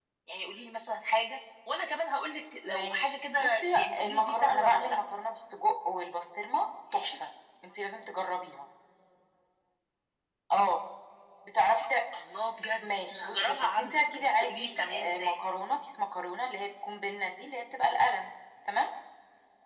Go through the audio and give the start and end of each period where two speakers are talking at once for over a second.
2.6-5.0, 12.8-15.4

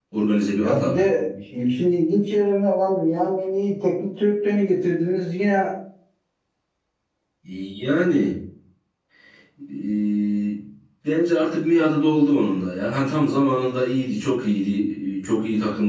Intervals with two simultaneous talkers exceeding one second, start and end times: none

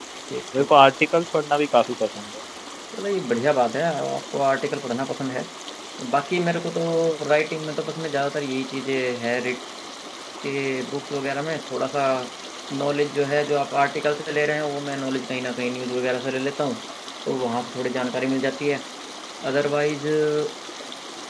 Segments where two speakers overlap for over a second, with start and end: none

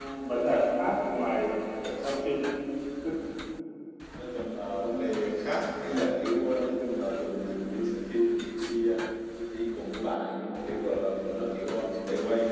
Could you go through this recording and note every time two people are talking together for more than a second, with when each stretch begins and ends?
none

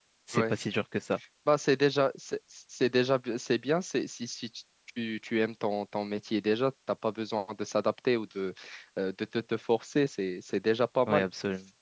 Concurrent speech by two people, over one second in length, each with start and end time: none

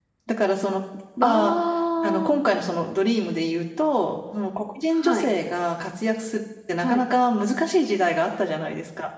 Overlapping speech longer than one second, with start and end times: none

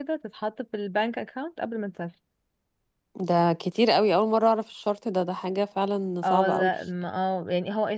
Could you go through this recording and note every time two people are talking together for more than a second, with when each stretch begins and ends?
none

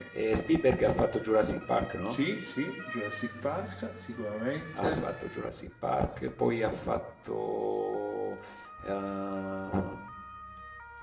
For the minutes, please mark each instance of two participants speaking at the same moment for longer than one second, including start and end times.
none

